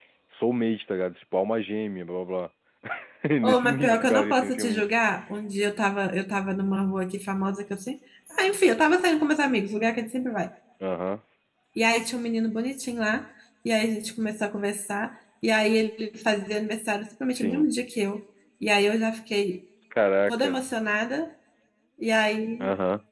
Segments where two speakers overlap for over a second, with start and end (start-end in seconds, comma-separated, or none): 3.4-4.8